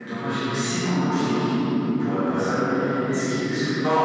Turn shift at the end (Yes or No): No